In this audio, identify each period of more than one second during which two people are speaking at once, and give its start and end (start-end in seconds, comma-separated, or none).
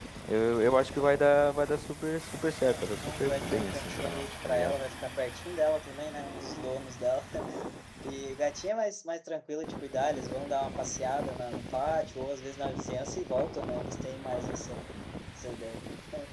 2.6-4.8